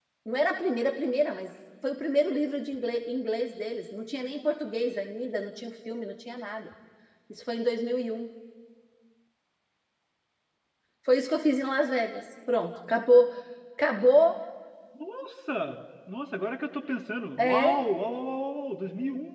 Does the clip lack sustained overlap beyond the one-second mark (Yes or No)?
Yes